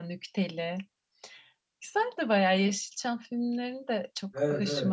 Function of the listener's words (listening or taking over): taking over